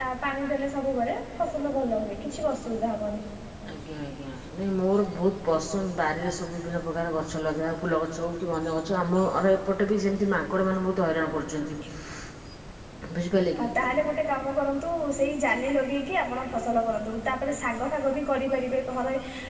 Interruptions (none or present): none